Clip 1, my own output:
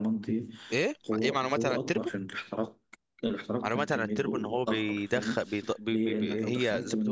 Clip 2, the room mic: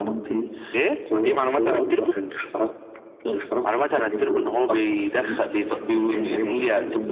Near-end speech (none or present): none